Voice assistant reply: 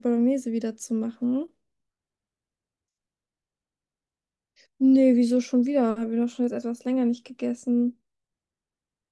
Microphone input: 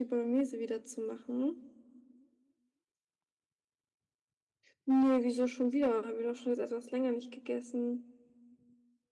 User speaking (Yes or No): No